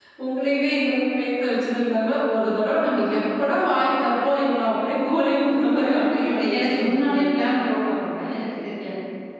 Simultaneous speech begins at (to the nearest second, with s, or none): 6 s